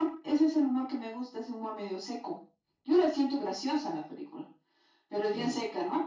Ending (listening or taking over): listening